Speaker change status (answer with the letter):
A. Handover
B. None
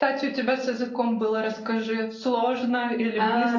A